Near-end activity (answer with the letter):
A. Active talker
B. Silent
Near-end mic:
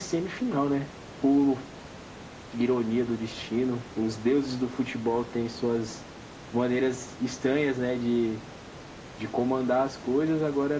B